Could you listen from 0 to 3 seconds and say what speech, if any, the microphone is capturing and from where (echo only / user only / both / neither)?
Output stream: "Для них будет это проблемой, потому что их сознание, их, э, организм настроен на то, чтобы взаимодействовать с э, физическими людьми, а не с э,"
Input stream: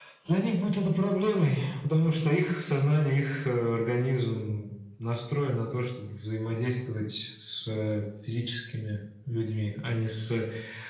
echo only